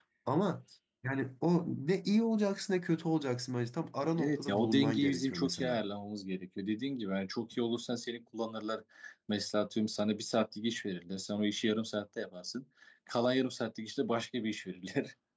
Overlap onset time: 4.2 s

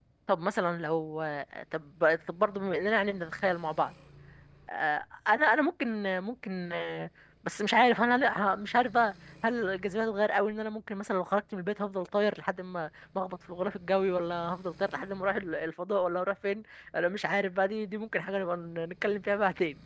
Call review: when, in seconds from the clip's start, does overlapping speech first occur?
none

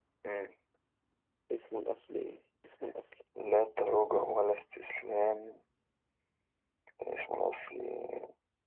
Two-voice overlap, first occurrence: none

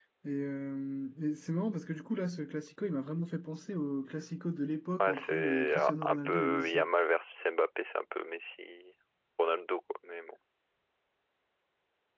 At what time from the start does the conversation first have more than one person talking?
5.0 s

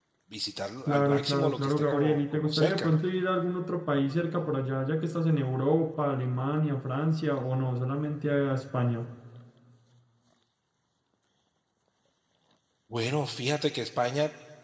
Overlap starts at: 0.9 s

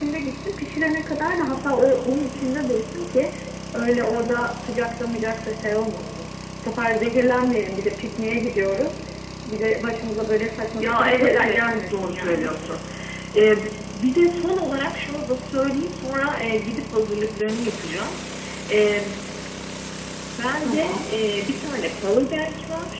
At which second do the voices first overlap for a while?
10.8 s

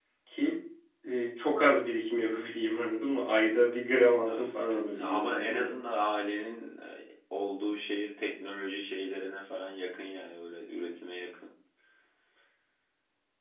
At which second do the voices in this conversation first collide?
4.2 s

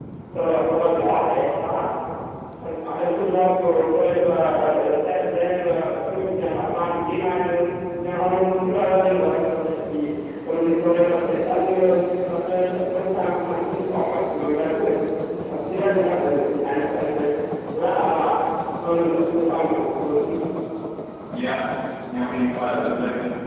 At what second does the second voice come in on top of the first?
none

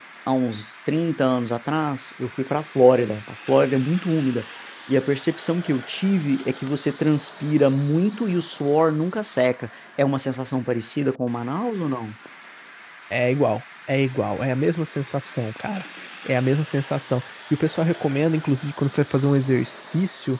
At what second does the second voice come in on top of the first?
none

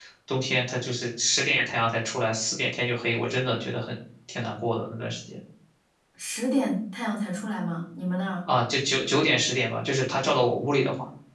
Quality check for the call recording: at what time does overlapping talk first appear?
none

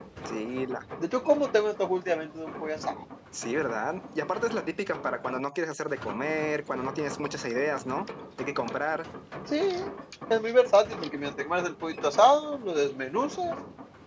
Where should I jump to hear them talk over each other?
none

